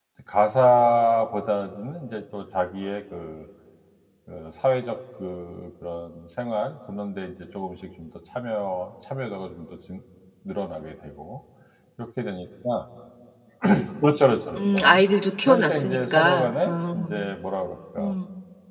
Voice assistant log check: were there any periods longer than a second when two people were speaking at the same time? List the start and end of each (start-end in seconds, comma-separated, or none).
15.5-17.1